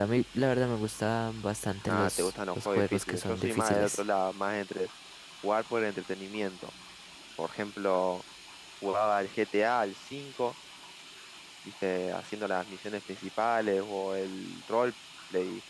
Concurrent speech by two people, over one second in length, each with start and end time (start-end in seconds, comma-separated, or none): 1.9-4.0